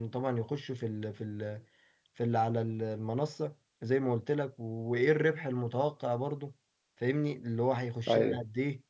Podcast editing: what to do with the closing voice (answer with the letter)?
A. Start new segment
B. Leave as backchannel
B